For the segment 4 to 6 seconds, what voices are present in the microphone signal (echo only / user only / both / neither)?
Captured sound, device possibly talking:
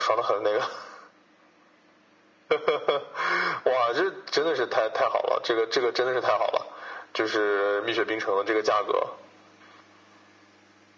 echo only